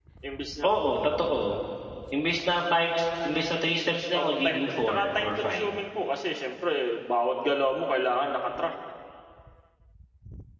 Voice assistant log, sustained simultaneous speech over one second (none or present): present